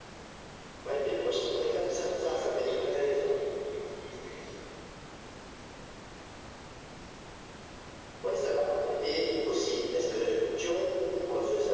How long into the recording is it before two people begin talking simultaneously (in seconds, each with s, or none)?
1.4 s